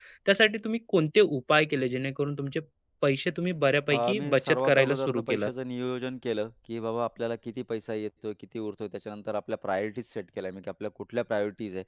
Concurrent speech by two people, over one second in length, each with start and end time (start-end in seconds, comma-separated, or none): 3.9-5.5